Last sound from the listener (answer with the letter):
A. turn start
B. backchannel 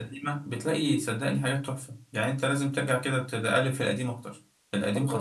A